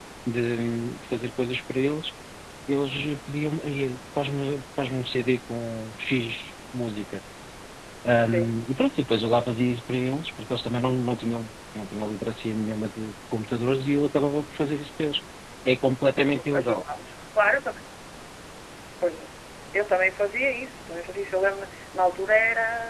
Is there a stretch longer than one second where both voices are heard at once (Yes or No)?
No